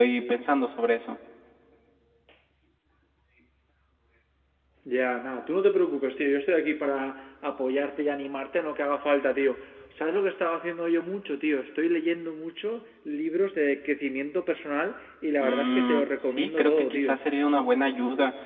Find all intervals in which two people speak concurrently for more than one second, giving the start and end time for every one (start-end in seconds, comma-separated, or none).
15.4-17.2